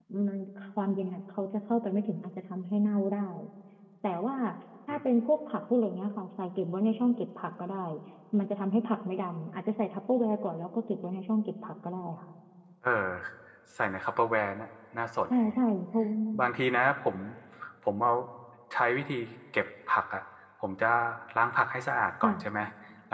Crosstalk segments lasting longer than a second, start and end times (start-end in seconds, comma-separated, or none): none